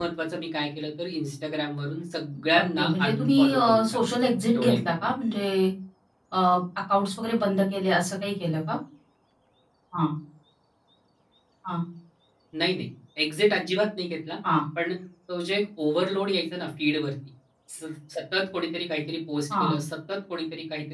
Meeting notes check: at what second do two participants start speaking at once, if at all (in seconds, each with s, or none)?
2.5 s